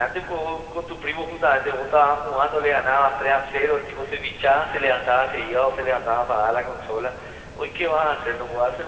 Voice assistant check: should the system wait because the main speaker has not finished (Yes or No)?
Yes